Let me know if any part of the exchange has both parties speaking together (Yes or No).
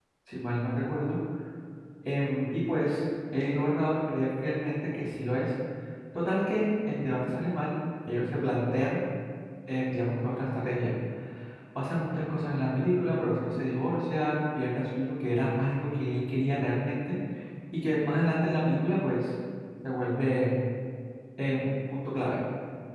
No